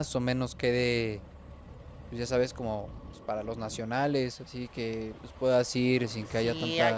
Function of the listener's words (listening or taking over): taking over